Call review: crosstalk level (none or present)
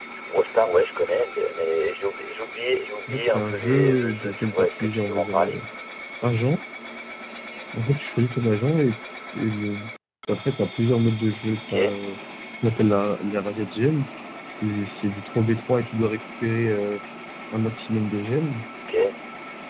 present